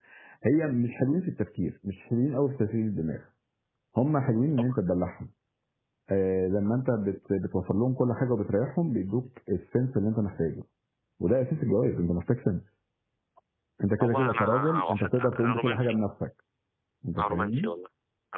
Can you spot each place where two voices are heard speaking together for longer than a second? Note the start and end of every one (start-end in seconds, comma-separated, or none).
14.0-15.9